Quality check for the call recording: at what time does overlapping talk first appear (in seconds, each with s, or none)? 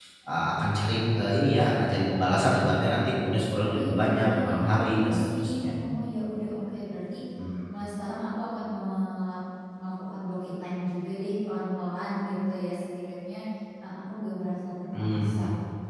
3.7 s